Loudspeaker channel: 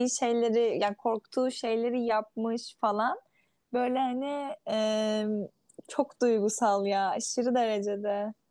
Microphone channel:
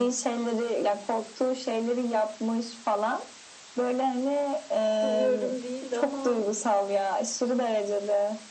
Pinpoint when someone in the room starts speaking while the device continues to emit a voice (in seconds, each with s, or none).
5.0 s